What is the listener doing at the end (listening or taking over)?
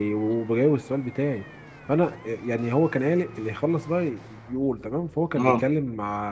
listening